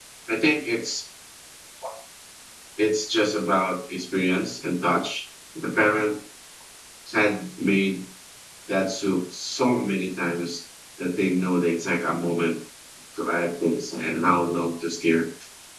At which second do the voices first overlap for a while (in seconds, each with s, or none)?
none